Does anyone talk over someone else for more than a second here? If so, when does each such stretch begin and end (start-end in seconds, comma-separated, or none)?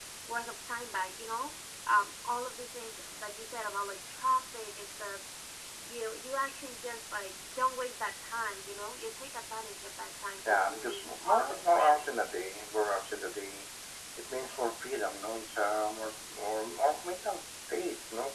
10.5-12.2